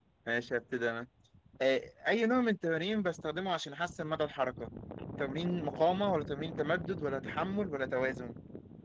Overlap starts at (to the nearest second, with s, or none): none